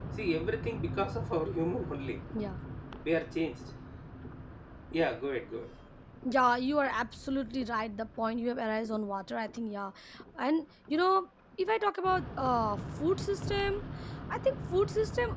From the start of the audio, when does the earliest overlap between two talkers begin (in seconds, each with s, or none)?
none